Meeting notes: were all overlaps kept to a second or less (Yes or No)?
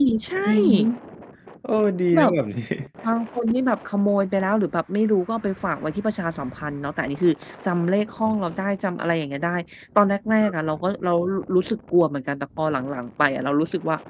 Yes